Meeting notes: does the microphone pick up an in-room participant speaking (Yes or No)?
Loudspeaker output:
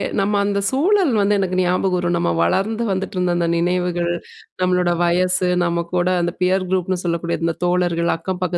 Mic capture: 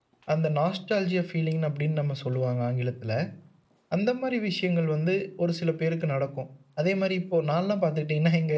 Yes